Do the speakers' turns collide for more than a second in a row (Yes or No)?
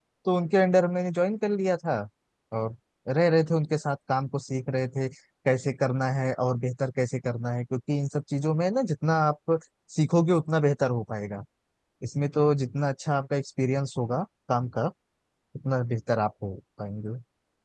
No